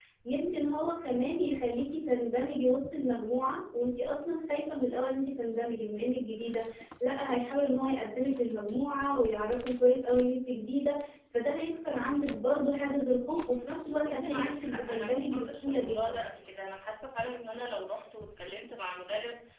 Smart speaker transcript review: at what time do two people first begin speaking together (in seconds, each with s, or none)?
14.0 s